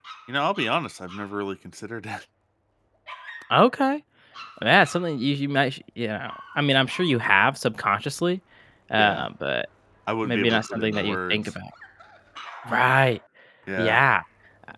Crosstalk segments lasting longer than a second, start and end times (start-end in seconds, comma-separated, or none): 10.2-11.5